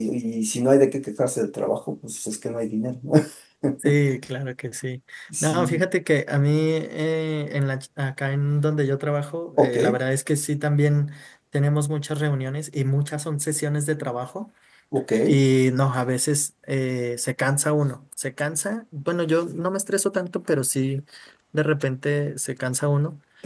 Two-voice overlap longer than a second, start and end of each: none

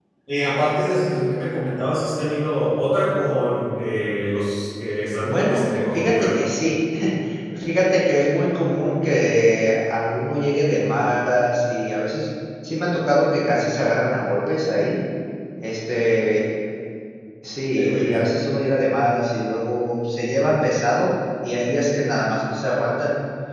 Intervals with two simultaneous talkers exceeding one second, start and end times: 5.2-6.4

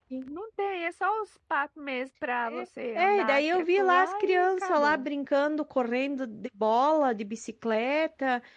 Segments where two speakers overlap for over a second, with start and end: 3.0-5.1

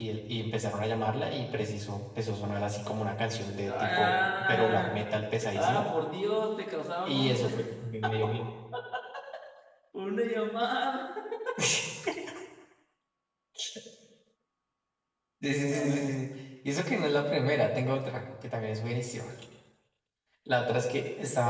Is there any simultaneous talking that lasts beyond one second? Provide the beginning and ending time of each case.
3.6-4.9

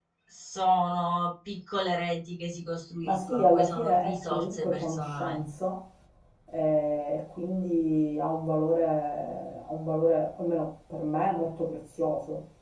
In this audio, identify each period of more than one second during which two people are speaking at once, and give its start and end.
3.0-5.4

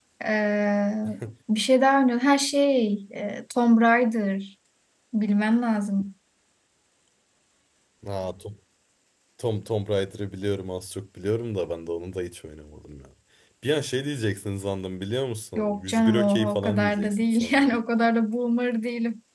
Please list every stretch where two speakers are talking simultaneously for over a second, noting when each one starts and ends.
15.6-17.8

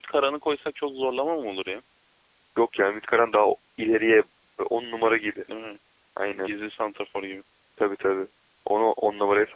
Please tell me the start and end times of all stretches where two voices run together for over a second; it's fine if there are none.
none

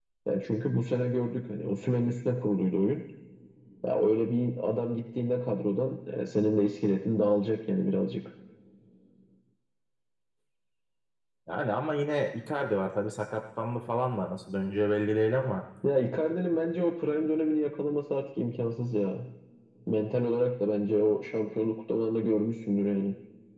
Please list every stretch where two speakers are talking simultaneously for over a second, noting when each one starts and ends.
none

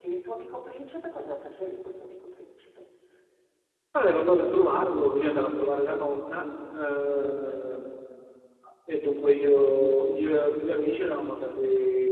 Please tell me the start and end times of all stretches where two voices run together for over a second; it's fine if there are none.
none

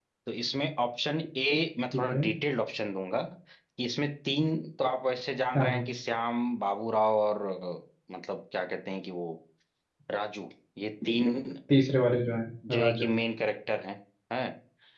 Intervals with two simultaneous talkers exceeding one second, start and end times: none

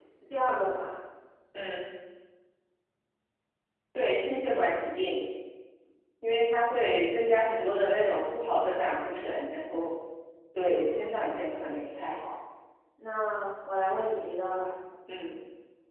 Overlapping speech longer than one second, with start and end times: 10.6-12.2

